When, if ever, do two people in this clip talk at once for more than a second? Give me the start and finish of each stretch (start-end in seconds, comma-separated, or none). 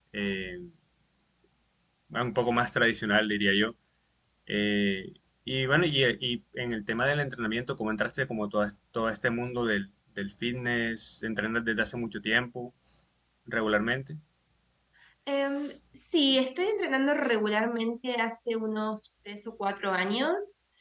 none